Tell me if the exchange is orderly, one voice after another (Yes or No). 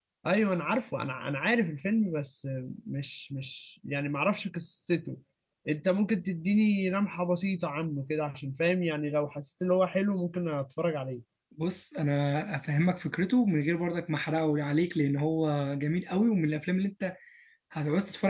Yes